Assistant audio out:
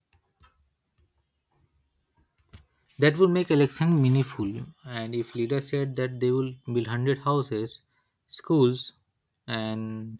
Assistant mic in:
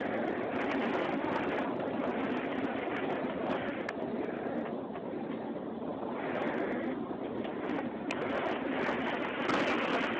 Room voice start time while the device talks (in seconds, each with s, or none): none